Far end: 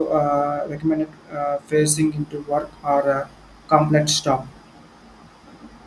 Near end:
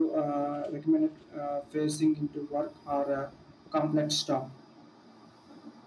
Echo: present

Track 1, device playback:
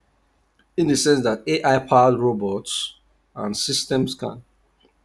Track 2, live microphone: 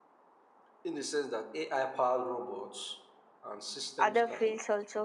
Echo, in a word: present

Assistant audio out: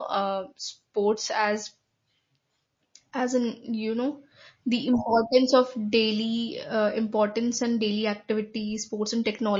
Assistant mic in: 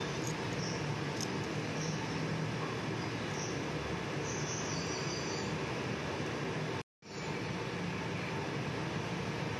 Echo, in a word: none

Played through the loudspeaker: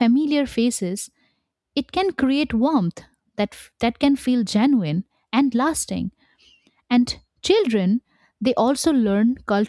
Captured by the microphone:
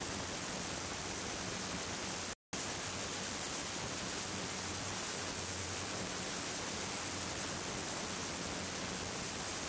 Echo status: none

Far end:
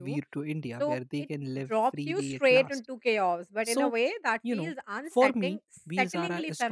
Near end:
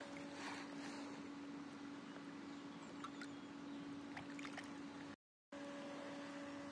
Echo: none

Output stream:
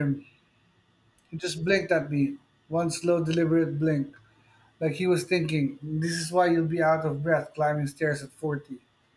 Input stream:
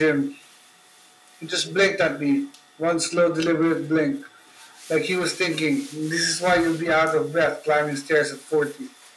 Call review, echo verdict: present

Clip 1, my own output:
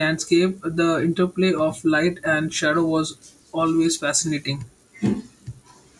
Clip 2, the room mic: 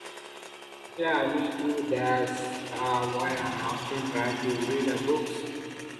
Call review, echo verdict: none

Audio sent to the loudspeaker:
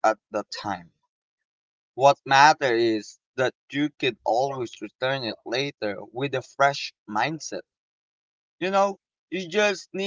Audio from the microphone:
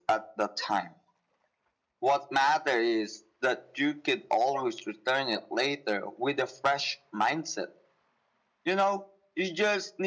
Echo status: present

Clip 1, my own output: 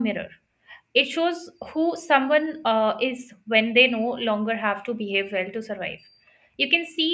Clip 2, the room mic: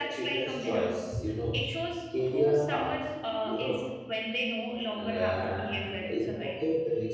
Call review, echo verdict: present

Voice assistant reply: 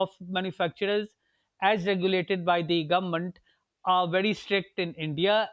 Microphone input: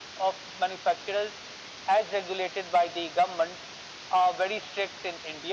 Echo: present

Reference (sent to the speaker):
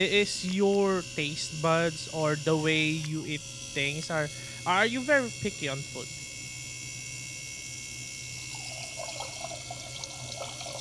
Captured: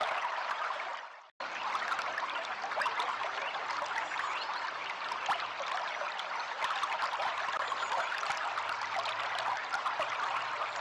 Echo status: none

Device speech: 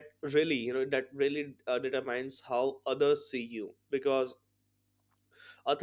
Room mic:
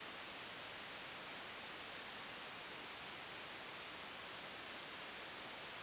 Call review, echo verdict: none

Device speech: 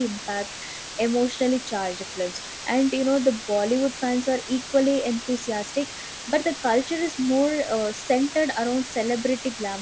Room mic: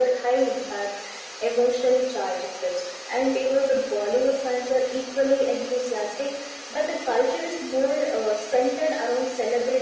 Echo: present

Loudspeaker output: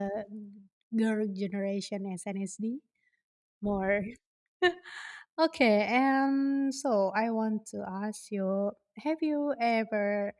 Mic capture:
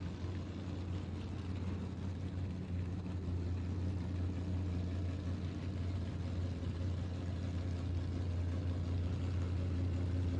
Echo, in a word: none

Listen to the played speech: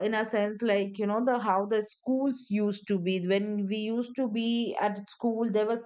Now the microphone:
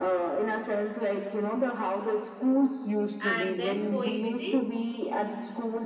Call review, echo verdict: present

